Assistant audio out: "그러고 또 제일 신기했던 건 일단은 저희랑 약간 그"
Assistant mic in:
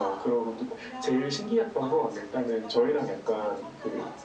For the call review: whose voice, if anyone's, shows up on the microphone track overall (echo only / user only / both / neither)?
both